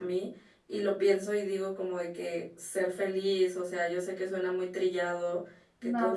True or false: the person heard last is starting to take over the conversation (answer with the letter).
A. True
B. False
B